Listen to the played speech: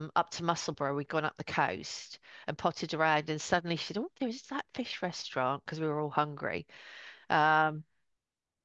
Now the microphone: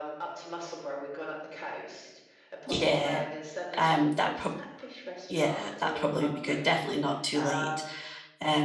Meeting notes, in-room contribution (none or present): present